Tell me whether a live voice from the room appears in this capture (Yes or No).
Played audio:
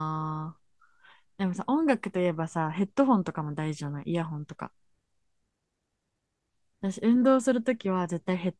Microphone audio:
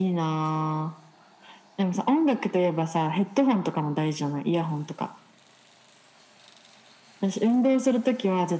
No